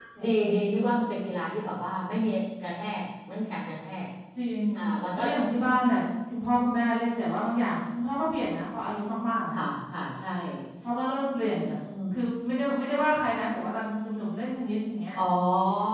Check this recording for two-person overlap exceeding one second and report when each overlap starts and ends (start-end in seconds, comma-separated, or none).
none